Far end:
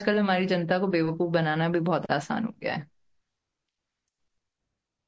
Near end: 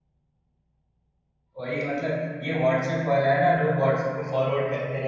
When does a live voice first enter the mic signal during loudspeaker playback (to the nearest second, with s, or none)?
2 s